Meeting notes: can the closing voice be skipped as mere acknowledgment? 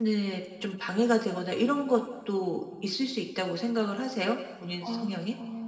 No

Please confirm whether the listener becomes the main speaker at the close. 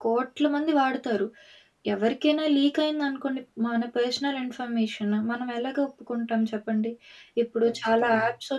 No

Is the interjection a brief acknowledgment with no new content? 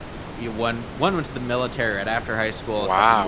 Yes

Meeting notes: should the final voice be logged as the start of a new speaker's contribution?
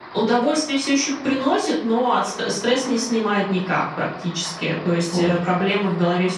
No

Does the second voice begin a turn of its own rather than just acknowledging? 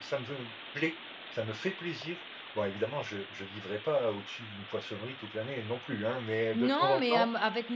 Yes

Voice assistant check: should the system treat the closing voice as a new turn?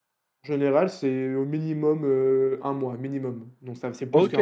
Yes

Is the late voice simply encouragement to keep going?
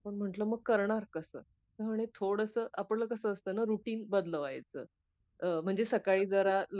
Yes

